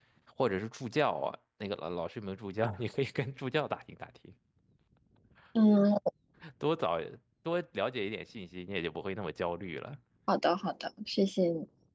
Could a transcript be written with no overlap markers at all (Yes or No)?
Yes